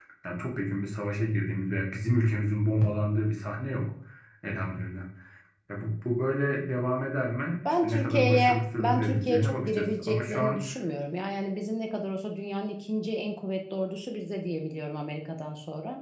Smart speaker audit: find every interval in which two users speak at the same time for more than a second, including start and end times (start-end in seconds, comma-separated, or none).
7.8-10.6